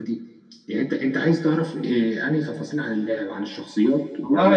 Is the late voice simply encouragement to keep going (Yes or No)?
No